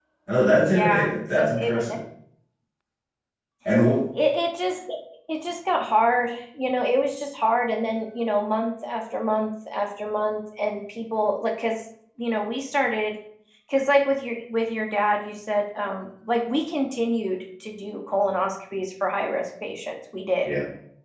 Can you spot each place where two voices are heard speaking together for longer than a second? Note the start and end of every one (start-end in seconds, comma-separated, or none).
0.7-2.0